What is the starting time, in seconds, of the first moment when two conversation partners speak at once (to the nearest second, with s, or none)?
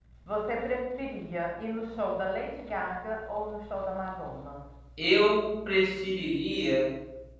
none